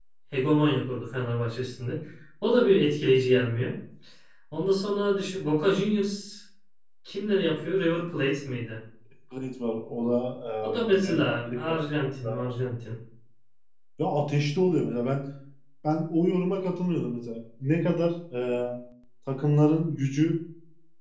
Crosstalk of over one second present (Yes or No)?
Yes